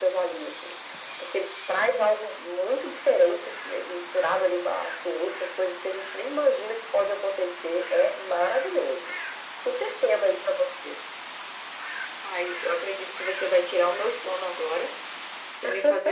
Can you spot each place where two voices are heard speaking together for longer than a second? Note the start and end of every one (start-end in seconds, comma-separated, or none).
none